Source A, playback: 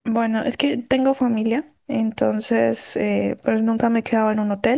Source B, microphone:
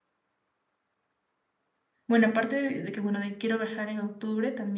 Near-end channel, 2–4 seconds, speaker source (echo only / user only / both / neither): user only